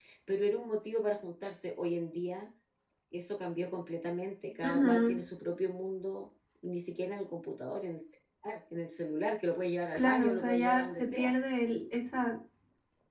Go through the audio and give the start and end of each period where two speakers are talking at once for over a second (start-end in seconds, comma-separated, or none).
9.9-11.3